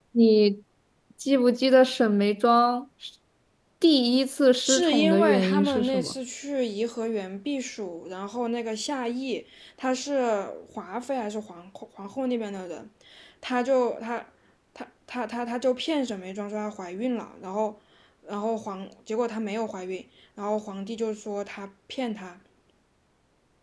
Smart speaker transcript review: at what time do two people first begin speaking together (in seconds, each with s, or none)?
4.6 s